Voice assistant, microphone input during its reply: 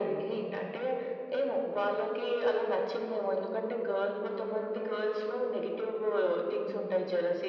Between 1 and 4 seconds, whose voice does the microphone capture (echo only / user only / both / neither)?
echo only